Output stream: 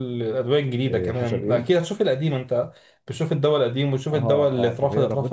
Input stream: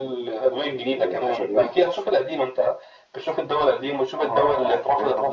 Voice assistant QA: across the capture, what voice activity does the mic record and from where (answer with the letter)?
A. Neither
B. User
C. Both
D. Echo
D